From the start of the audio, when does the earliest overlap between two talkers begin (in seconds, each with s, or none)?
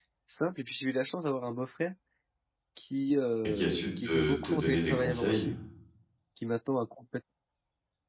3.4 s